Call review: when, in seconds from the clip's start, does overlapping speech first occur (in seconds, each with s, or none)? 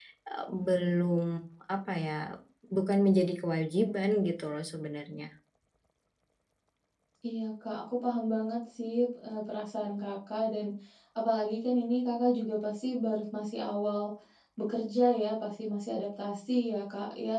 none